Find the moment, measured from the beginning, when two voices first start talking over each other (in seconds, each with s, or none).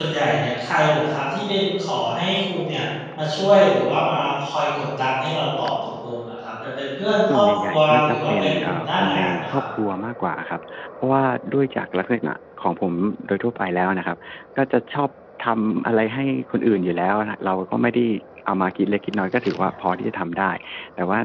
7.3 s